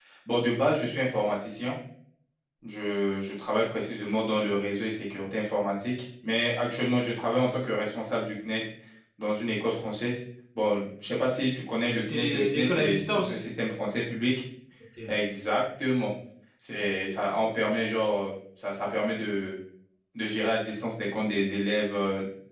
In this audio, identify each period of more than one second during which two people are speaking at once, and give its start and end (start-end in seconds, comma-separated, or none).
12.0-13.5